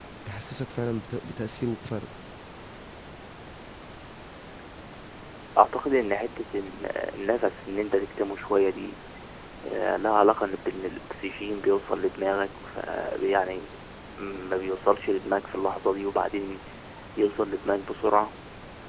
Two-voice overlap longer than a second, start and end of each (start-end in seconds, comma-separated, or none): none